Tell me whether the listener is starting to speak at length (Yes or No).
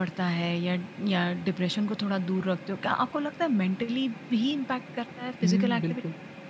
Yes